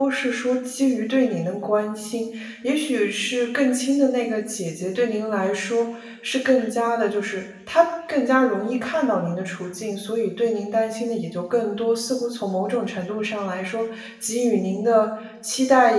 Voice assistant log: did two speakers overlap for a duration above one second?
No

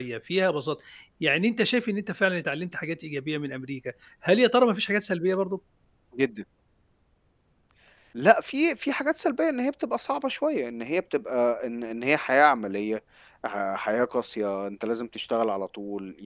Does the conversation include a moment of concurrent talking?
No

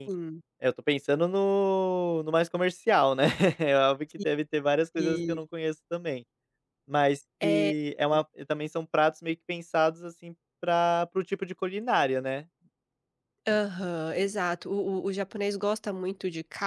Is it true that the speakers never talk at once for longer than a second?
Yes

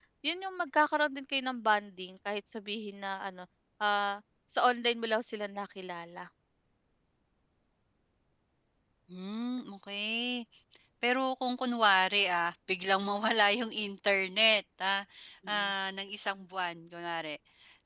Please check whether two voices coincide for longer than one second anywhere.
No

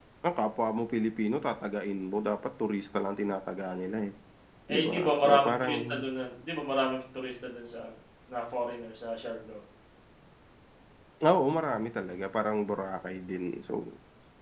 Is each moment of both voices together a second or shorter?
No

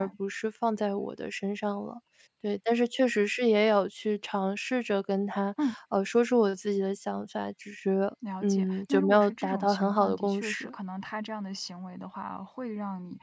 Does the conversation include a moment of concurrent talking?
Yes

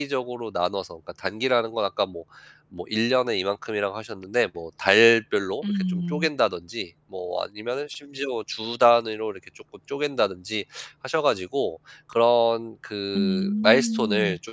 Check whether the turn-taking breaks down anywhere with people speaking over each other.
Yes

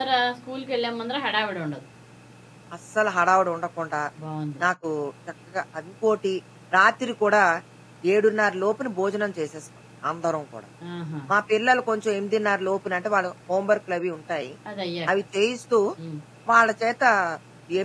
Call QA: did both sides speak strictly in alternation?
Yes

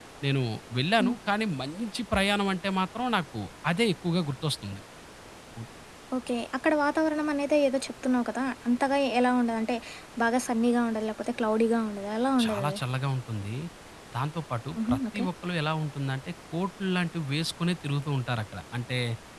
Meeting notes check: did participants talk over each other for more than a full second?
No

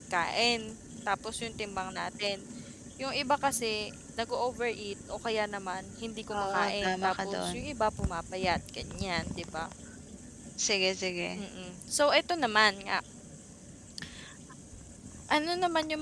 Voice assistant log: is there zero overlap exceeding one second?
No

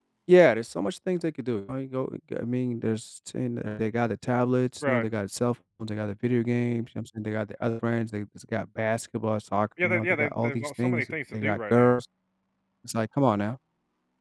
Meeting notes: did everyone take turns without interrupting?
No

